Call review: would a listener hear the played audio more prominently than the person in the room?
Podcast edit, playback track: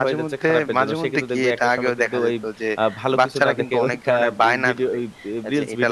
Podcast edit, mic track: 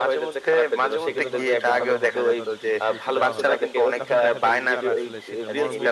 Yes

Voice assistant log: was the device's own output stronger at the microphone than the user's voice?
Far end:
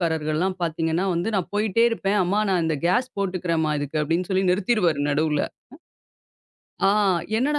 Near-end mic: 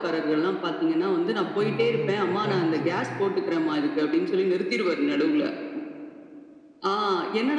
Yes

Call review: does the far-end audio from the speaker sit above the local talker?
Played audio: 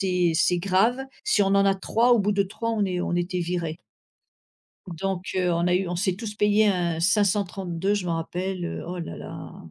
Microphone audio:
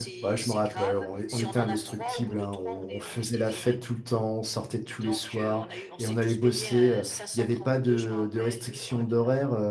No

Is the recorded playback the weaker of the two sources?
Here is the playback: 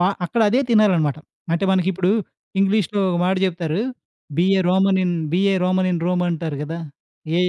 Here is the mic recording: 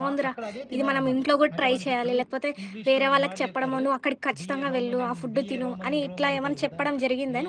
Yes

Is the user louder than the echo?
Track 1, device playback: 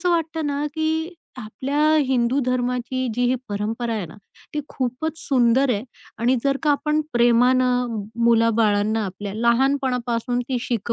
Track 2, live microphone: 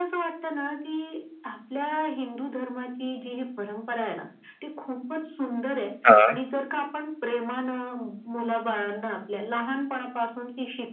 Yes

